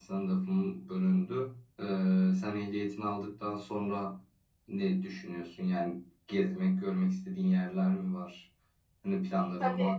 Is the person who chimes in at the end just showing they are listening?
No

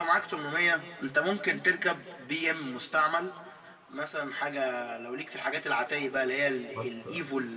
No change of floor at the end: Yes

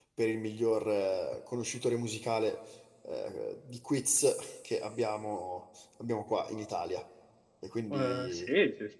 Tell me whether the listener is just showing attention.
No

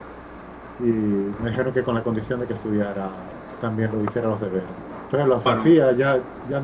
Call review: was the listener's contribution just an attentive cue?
Yes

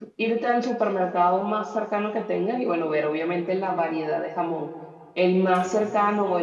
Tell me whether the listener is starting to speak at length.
No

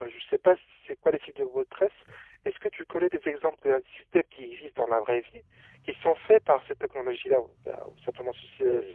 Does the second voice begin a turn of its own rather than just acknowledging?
Yes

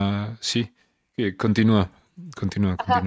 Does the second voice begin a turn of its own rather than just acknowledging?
Yes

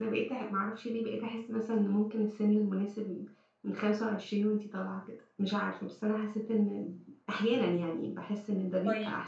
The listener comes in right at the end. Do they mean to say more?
Yes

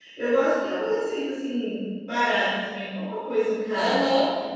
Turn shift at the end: Yes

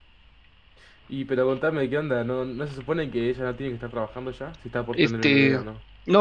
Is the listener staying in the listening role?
No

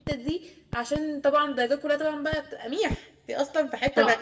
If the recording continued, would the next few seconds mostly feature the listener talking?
Yes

